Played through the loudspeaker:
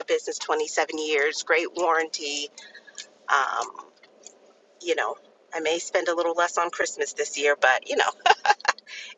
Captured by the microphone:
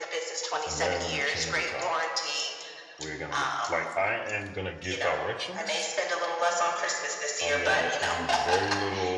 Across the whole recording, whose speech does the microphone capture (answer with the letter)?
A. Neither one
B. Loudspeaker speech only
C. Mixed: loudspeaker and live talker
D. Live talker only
C